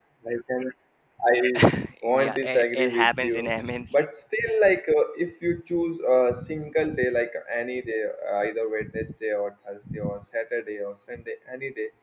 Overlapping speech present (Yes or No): Yes